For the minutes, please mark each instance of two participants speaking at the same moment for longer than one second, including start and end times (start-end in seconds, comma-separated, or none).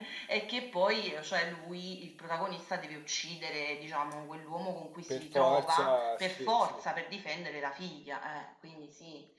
5.1-6.7